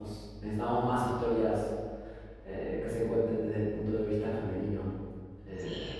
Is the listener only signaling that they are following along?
No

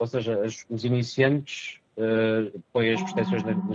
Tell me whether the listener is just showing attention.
Yes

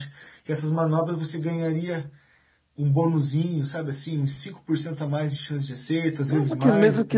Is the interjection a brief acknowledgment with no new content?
No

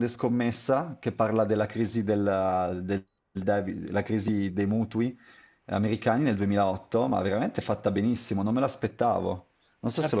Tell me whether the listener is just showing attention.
No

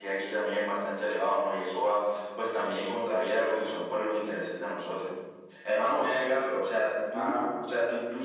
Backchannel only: Yes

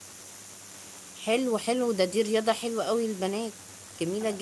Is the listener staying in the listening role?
No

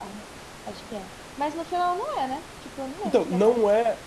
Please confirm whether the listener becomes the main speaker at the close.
Yes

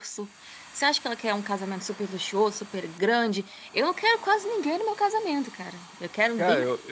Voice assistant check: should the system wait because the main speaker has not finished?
No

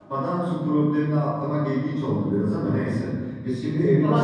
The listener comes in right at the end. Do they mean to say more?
Yes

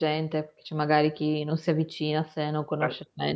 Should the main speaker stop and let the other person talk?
Yes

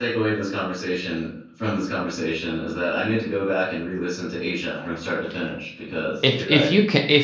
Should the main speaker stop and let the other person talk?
Yes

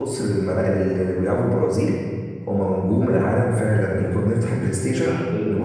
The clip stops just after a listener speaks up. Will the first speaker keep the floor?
Yes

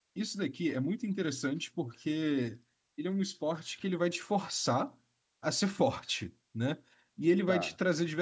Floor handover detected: No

